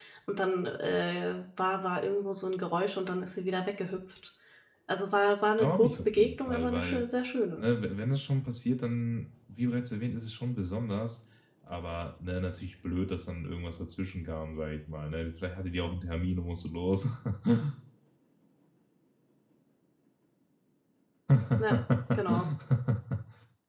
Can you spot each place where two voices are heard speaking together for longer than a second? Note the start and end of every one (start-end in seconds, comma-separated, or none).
5.6-7.0